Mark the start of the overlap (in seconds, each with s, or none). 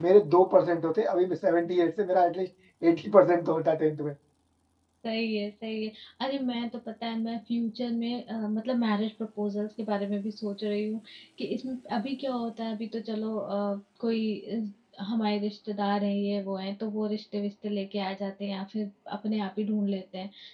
none